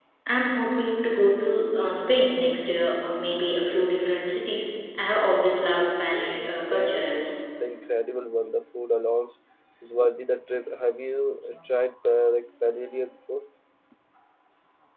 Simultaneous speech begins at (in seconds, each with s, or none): 6.1 s